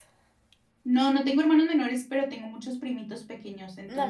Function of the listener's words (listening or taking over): taking over